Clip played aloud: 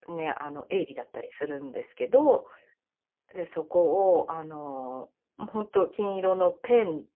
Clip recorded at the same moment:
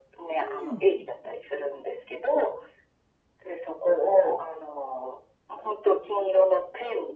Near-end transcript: うん。

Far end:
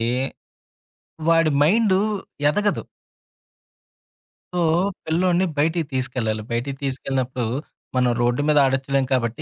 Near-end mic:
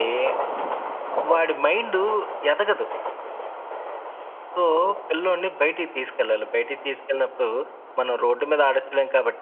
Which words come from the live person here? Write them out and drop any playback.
none

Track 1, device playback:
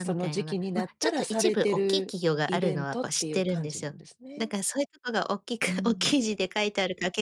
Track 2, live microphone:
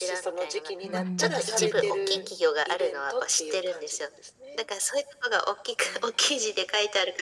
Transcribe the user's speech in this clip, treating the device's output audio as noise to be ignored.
うんうん、そうですね。

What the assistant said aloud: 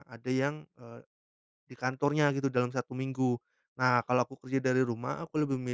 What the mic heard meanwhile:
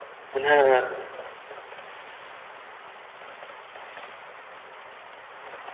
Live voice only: Bener.

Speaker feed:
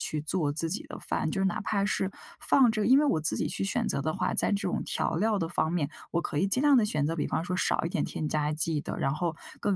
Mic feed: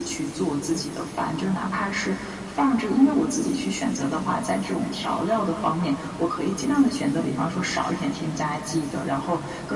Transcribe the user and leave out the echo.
none

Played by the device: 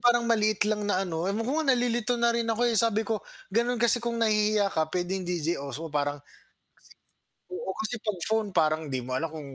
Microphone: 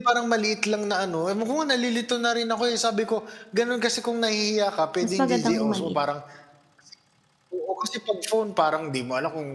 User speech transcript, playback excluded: Mas maganda nga 'yong maliit.

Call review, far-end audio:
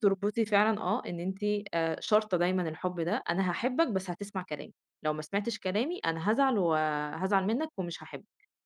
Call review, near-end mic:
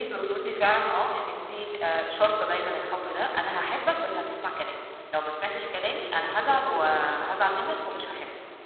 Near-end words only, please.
none

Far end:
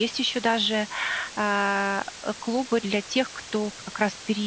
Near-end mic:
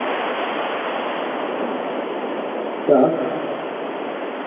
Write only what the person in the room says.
Так.

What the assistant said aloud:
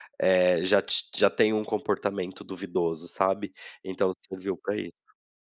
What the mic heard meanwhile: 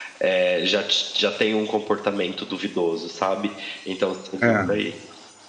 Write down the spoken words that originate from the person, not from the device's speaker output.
Hã.

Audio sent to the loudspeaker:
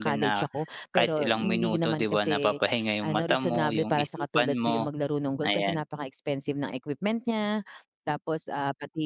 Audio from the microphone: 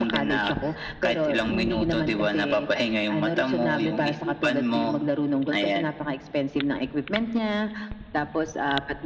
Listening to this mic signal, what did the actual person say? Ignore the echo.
none

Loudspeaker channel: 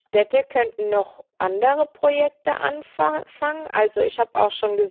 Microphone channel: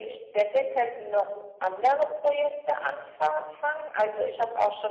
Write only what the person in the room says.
none

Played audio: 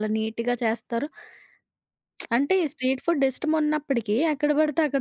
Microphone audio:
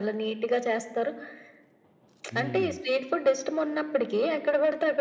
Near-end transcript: హ్మ్.

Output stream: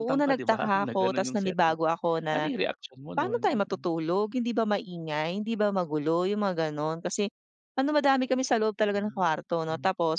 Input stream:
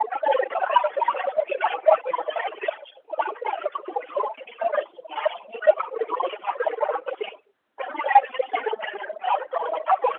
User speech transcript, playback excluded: none

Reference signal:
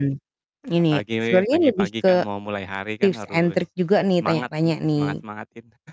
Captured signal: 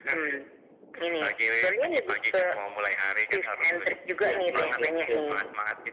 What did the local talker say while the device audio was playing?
Iya iya iya iya.

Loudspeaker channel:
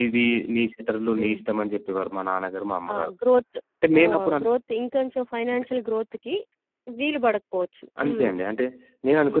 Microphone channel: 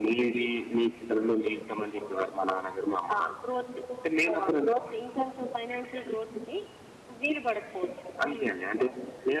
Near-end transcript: none

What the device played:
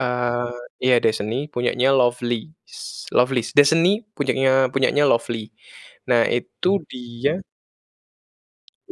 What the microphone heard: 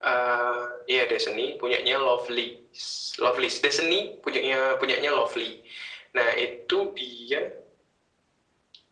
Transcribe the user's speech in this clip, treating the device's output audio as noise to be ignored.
none

